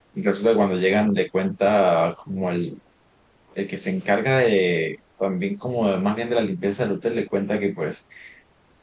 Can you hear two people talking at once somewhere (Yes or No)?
No